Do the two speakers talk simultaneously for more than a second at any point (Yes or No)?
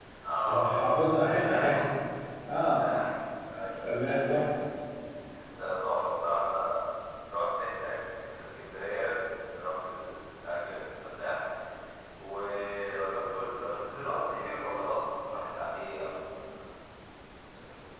Yes